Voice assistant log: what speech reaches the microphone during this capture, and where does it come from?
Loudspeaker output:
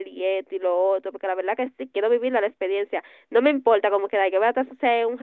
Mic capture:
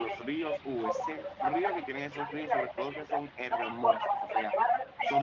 both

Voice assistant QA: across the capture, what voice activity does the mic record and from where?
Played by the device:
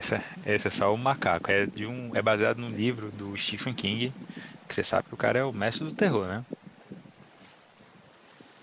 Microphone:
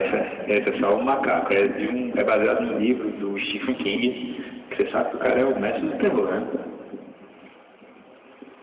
echo only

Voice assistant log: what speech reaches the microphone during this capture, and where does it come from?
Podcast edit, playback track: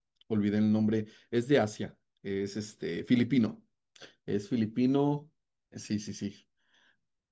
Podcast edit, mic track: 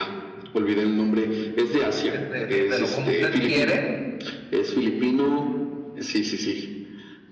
both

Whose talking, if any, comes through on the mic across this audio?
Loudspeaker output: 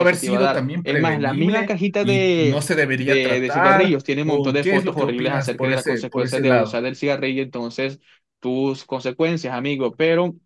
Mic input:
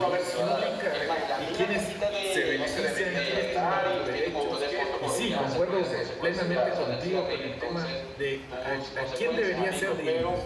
both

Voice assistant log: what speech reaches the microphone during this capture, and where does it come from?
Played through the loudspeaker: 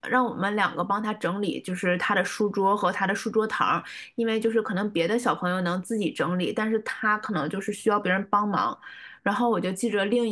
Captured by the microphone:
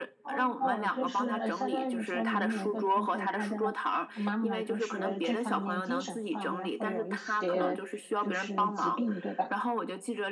both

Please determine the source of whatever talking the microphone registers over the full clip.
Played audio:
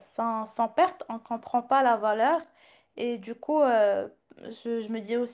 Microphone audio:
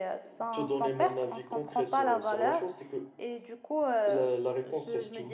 both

